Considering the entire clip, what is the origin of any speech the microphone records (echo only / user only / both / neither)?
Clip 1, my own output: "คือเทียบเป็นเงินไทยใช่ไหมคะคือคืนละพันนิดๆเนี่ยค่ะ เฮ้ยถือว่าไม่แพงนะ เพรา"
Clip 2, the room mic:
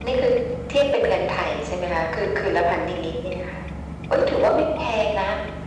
echo only